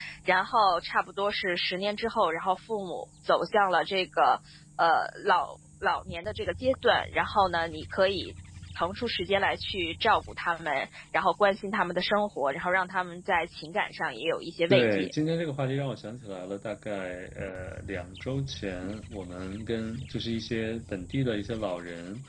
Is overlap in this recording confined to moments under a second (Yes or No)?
Yes